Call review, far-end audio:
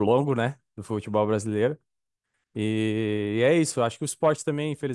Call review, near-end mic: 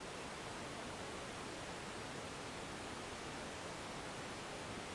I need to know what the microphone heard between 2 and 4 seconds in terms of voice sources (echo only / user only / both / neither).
neither